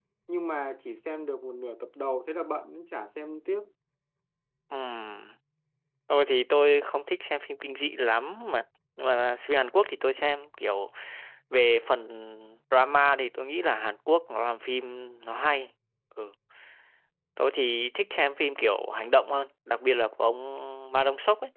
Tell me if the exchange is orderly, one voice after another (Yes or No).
Yes